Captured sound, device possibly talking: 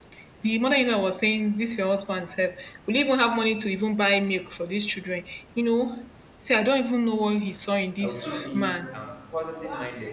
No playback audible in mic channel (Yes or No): No